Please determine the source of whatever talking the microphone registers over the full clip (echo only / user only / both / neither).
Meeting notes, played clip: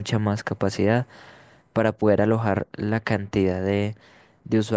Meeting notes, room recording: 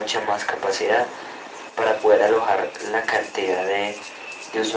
echo only